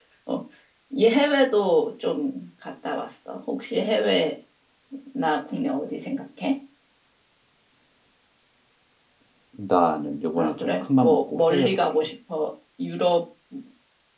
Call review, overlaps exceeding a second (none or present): present